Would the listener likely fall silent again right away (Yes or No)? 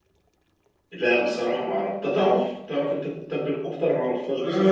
No